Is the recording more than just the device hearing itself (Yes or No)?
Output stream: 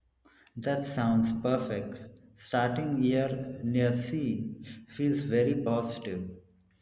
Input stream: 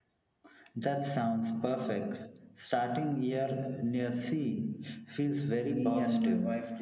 Yes